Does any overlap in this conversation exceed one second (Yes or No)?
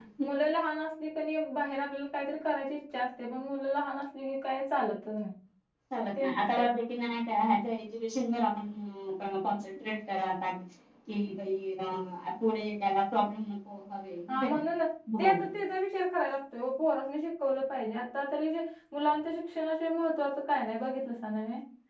No